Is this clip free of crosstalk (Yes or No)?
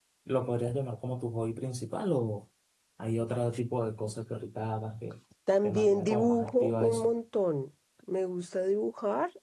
No